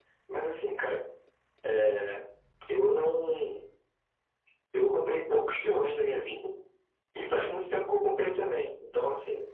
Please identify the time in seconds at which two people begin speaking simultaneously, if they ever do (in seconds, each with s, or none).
none